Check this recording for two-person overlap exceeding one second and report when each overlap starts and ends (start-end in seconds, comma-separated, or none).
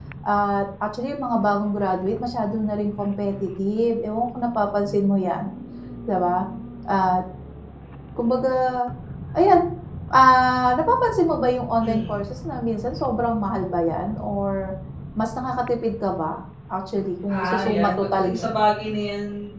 17.3-18.6